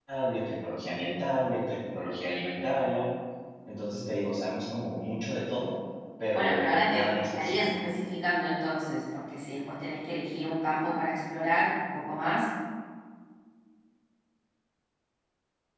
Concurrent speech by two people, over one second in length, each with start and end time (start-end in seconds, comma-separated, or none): 6.3-7.8